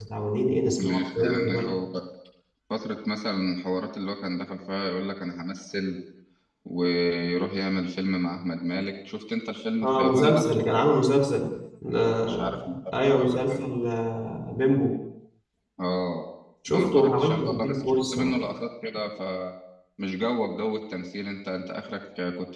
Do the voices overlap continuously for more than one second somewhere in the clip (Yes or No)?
Yes